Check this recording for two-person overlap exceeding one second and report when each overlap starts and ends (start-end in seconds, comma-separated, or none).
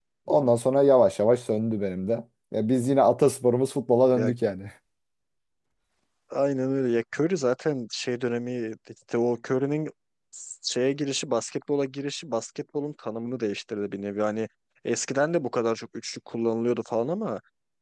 none